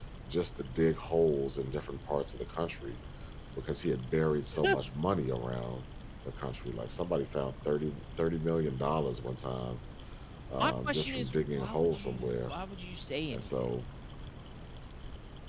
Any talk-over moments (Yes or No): Yes